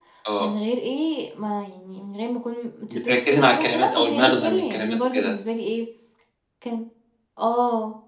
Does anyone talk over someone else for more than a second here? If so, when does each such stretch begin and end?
2.9-5.3

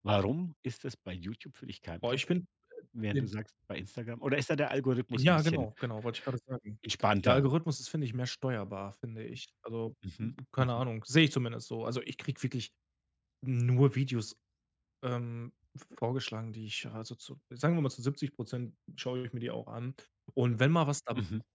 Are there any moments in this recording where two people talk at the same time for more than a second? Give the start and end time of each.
none

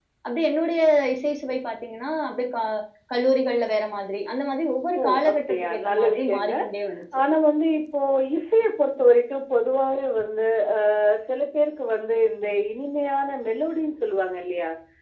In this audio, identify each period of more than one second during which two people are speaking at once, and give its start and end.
5.0-6.5

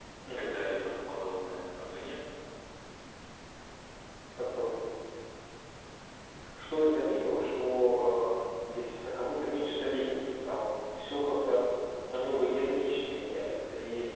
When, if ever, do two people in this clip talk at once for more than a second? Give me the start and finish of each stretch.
none

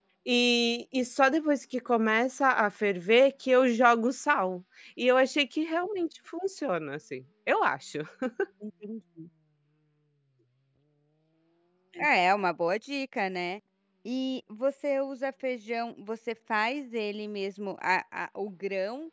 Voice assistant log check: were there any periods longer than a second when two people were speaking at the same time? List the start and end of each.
none

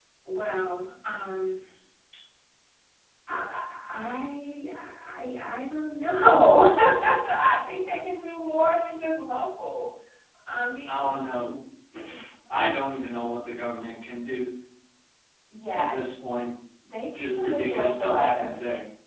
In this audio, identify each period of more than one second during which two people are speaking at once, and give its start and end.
17.1-18.6

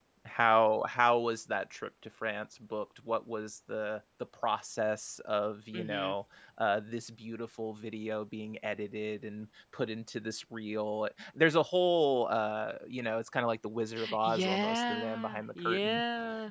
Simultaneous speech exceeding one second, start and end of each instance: 14.2-16.0

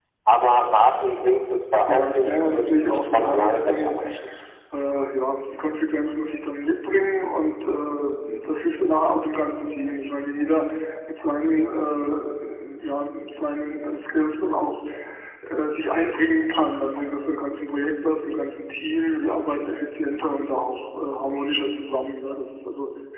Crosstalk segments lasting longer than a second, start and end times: 1.9-3.9

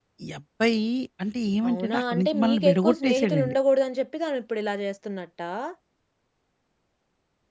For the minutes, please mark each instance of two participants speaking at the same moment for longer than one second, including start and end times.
1.7-3.5

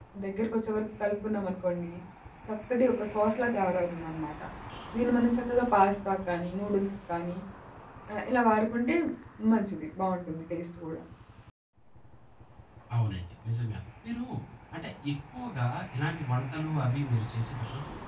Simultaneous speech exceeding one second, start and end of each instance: none

